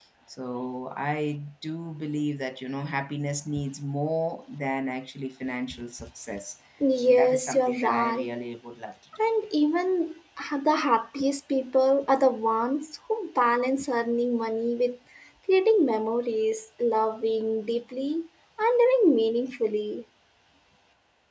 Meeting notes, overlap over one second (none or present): present